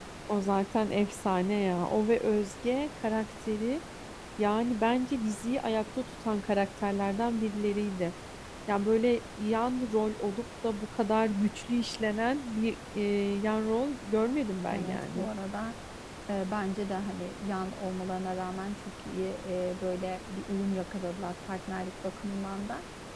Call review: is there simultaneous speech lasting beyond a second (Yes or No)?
No